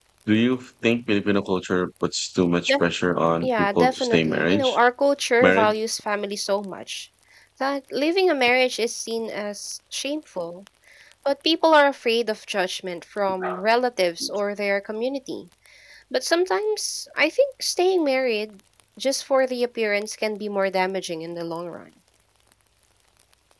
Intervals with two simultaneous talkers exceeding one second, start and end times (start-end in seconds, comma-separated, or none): 3.4-4.8